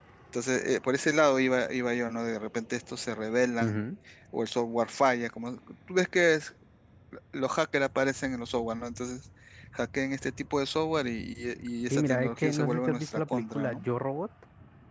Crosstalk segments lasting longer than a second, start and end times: 11.9-13.9

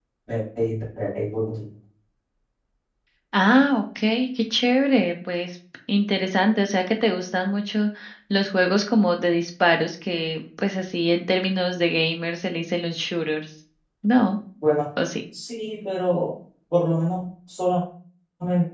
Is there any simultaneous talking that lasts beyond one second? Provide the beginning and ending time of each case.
none

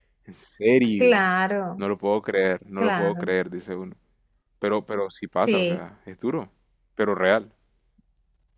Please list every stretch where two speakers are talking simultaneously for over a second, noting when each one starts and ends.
none

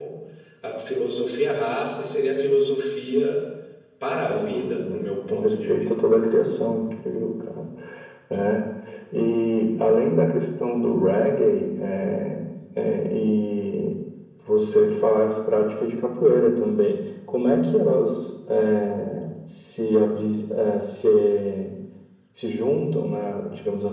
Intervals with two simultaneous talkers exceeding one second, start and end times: 4.3-5.9

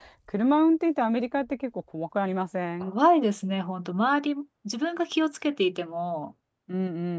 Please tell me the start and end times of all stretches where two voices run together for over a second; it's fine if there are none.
none

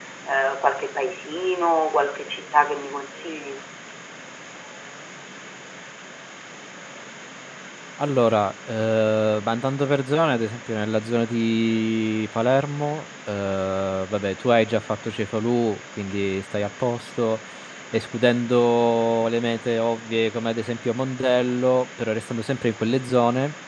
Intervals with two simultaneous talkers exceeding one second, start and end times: none

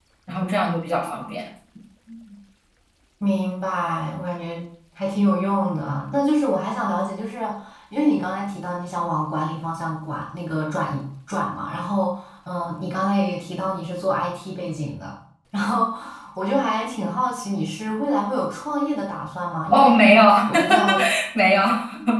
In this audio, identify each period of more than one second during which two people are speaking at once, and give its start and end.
none

